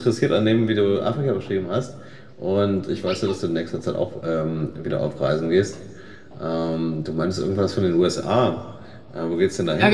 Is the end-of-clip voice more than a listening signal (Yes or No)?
Yes